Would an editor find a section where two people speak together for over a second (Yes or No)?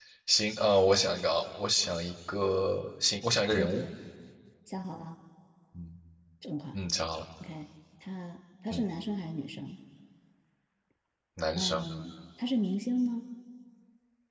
No